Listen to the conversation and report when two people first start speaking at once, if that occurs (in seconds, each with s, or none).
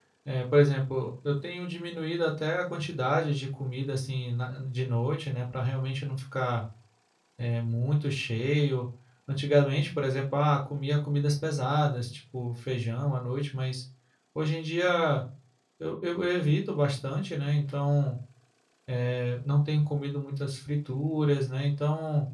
none